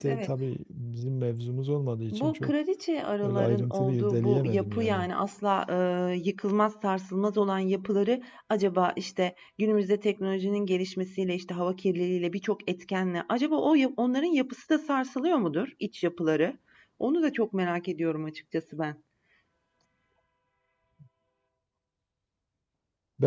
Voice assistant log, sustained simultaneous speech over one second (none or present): present